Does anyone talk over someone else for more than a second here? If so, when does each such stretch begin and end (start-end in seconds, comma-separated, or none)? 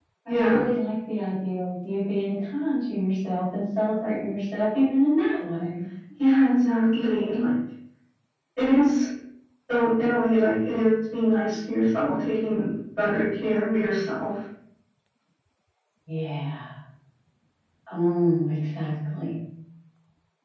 none